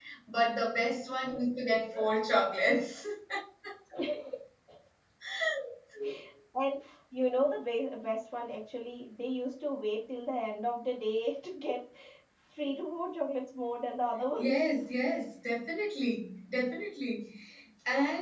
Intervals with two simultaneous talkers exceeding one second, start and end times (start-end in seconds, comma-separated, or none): none